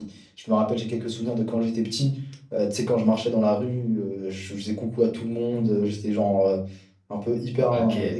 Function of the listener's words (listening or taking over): listening